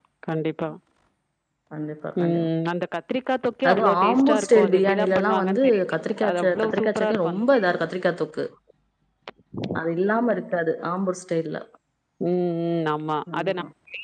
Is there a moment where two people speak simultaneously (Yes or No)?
Yes